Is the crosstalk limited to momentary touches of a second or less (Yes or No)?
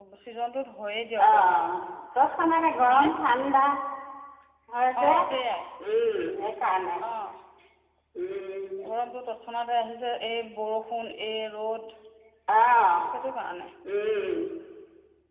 Yes